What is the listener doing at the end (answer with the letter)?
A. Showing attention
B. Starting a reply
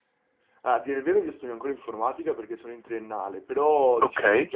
A